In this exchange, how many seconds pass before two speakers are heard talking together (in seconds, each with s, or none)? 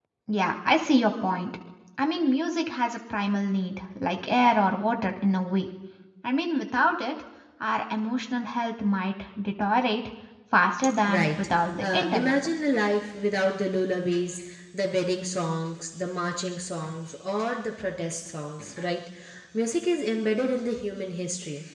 11.1 s